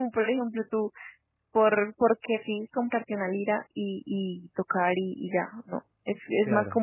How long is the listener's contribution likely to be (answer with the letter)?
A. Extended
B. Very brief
B